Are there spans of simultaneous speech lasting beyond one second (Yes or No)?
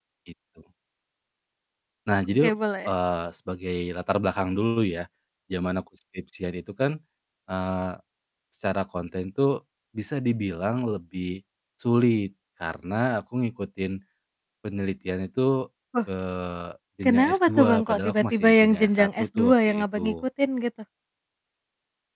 Yes